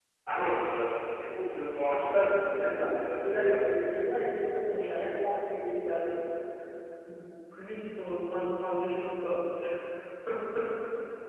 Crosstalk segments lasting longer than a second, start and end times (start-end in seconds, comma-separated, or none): 1.8-3.5